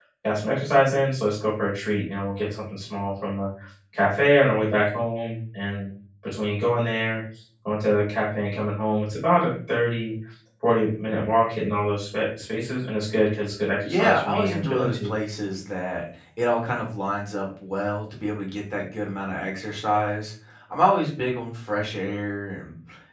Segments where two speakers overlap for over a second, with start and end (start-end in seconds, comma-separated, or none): 13.8-15.1